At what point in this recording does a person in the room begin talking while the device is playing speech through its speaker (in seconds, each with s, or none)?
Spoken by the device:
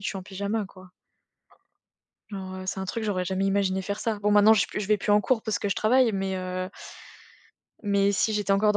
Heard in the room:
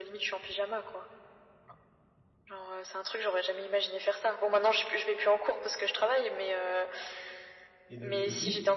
7.9 s